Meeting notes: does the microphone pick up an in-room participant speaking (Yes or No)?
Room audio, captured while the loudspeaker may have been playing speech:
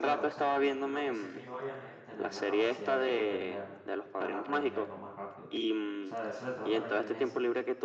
Yes